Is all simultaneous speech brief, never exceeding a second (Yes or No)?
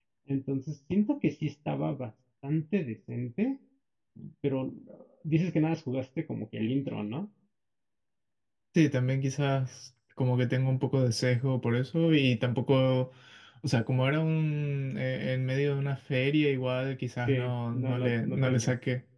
No